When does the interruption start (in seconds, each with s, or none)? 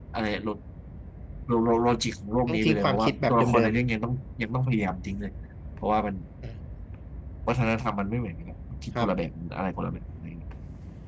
2.5 s